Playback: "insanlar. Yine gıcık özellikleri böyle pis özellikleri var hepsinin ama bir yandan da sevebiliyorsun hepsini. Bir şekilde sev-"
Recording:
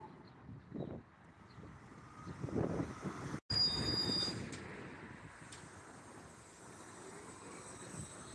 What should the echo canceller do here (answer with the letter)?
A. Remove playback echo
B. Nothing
B